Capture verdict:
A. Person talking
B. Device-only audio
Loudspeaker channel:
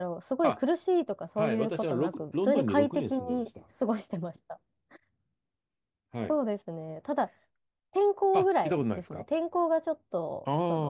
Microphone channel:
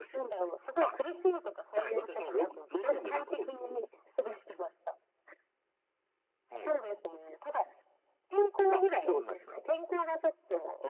B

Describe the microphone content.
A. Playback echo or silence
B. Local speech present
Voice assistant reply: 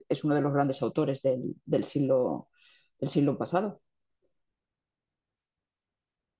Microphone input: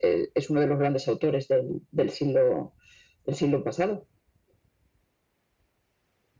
A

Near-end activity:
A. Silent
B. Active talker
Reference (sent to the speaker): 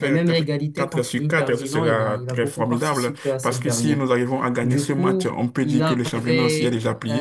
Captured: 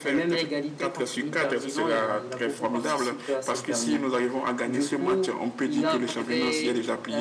A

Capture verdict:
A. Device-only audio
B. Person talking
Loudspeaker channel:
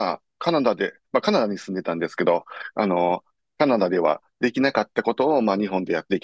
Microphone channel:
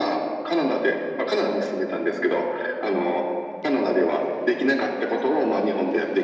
A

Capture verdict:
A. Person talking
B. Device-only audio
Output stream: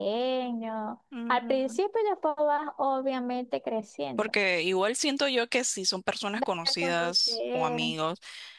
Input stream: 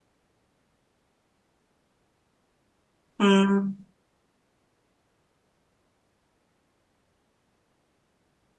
A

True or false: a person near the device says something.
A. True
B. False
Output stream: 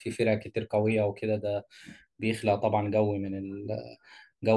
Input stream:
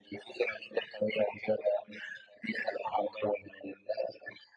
B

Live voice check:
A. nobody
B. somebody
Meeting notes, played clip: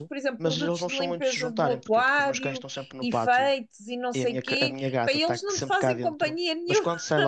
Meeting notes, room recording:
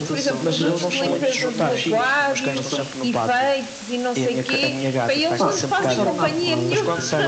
B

